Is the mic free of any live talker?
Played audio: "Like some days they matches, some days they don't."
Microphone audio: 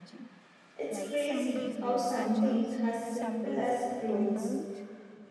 No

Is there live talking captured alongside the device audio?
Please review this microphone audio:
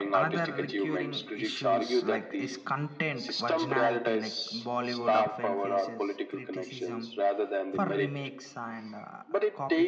Yes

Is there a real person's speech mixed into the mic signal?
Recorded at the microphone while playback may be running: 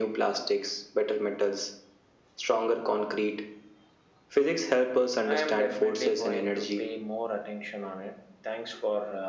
No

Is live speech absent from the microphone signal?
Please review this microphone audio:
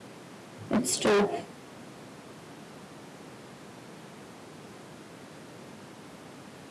No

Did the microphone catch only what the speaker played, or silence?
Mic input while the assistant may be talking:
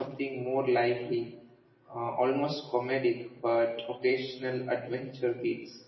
No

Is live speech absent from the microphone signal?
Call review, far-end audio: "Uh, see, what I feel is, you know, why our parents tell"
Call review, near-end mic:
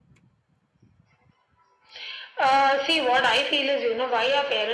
Yes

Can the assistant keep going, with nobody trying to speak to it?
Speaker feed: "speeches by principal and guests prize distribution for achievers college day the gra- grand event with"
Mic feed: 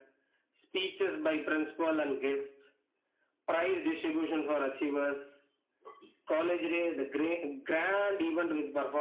Yes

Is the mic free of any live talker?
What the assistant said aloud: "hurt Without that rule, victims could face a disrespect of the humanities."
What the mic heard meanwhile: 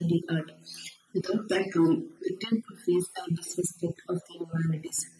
Yes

